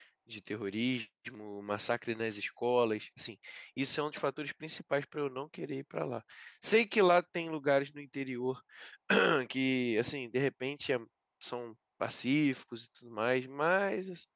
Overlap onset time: none

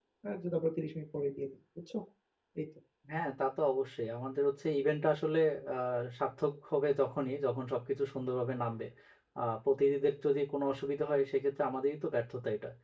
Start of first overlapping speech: none

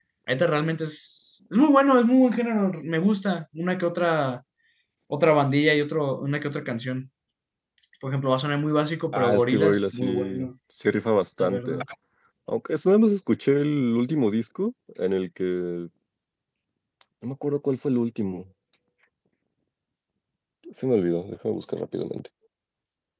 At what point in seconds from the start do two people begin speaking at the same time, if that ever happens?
9 s

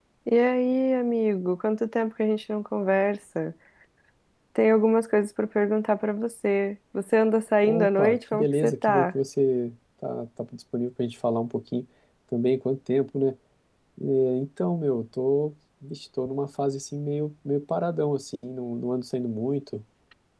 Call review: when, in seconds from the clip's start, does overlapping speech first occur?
8 s

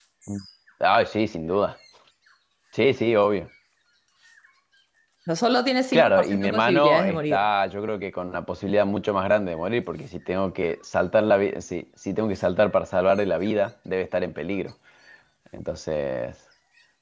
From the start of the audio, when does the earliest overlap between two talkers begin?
6 s

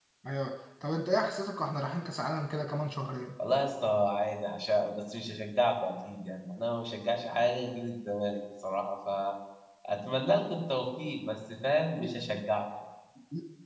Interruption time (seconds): none

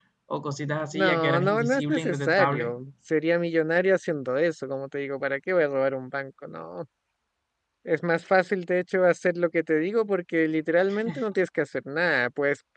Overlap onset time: 1 s

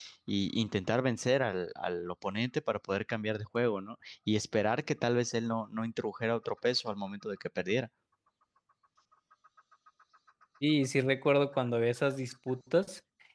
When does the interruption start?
none

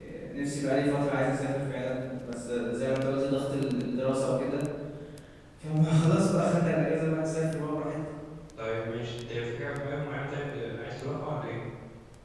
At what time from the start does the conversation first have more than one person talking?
none

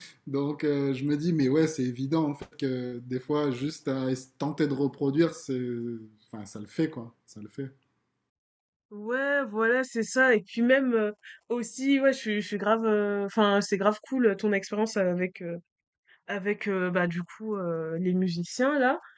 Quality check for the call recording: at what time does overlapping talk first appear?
none

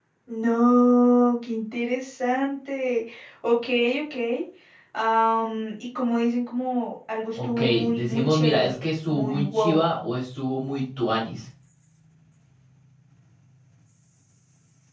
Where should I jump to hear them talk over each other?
7 s

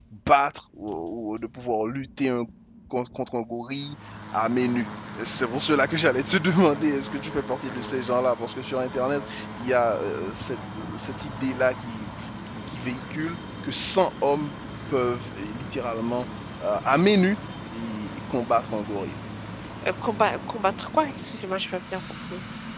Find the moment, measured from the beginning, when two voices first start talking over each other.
none

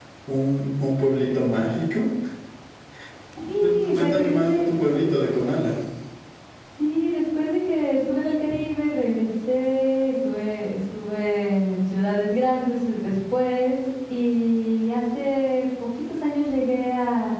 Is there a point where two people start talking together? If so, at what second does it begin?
4 s

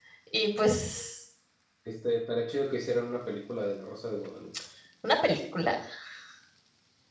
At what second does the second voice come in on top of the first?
none

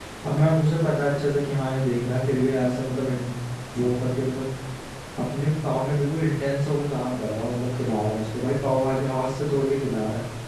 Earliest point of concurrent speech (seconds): none

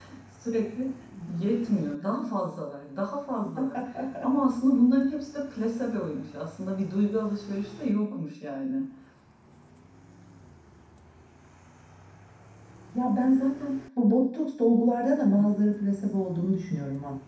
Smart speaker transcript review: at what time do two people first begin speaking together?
none

